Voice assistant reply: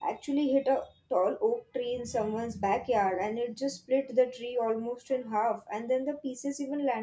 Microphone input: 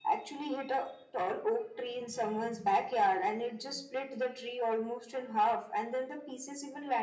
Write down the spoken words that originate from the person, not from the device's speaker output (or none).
none